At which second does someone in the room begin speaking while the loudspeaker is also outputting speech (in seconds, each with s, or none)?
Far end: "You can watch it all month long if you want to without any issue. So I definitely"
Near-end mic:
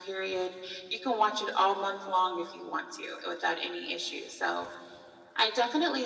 none